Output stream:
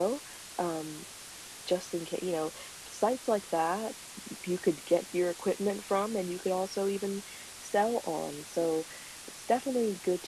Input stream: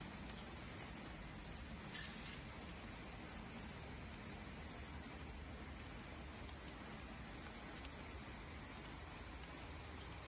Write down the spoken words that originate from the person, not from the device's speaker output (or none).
none